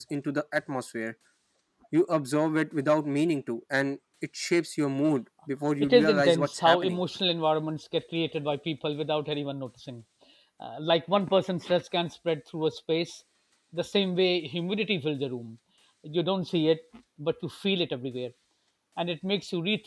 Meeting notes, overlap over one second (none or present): present